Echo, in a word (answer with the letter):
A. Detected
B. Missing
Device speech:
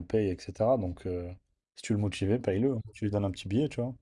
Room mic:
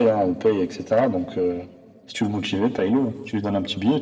A